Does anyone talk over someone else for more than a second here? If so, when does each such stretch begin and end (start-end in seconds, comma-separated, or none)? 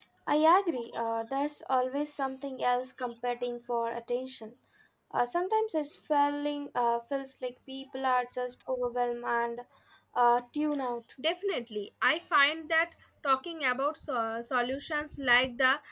none